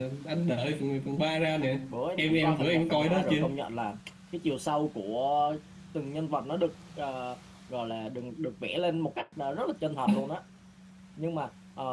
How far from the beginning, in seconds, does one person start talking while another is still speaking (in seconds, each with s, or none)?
2.2 s